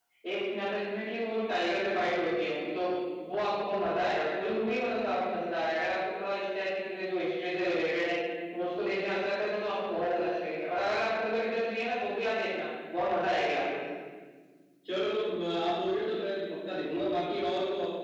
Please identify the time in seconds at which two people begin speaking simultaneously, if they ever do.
none

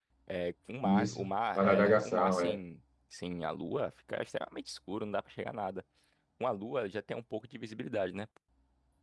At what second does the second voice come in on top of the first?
0.8 s

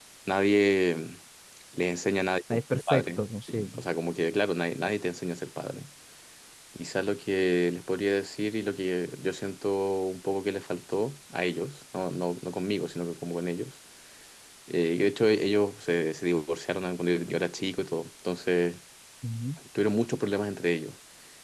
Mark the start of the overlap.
2.5 s

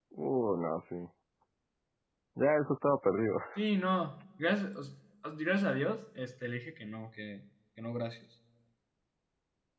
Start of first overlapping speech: none

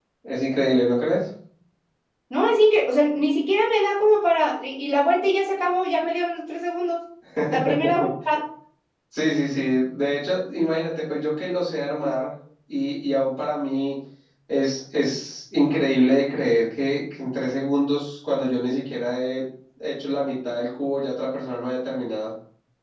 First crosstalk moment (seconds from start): none

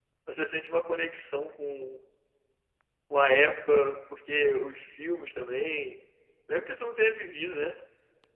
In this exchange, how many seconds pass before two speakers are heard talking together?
none

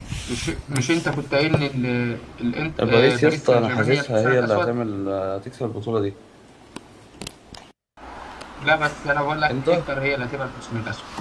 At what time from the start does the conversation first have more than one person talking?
2.8 s

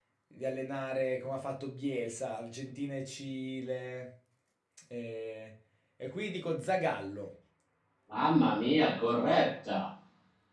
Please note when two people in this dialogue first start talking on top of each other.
none

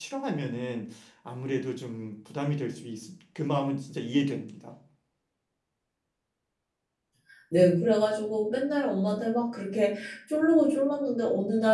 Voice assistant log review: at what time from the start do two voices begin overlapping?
none

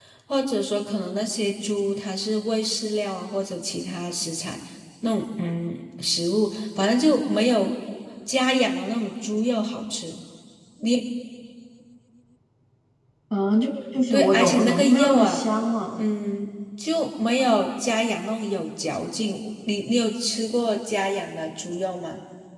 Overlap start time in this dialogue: 14.1 s

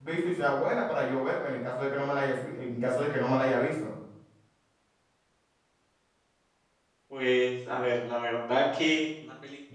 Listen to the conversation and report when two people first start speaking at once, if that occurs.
none

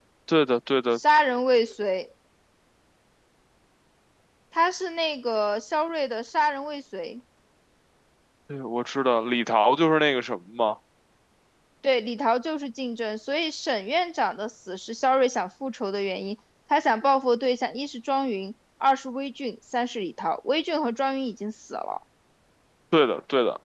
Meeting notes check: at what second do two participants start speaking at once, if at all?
none

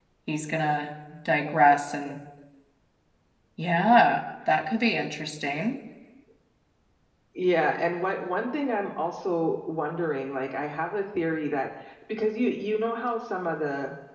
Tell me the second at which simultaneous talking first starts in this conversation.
none

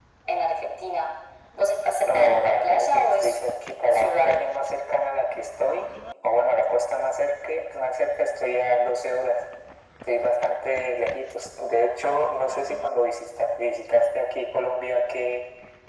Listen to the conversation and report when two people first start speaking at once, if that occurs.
2.0 s

